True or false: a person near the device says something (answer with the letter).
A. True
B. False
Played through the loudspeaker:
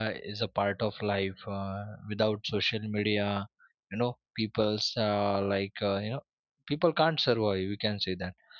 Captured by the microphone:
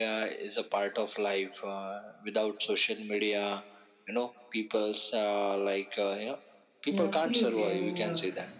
A